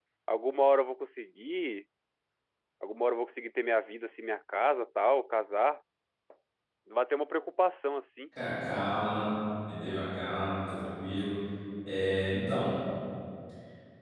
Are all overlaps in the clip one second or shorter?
Yes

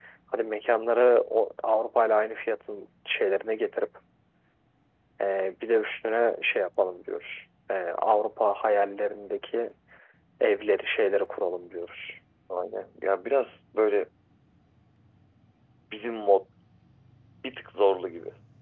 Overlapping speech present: No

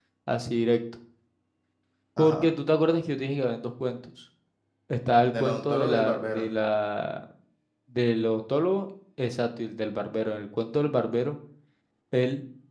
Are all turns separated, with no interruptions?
No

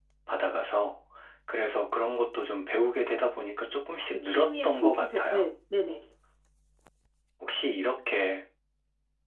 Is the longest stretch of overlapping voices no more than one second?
No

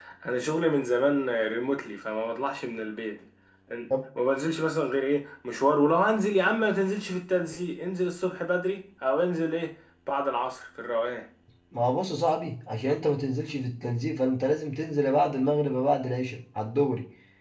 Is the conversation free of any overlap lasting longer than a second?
Yes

